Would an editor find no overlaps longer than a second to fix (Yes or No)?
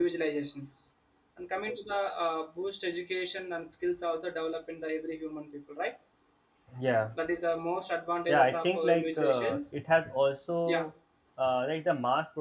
No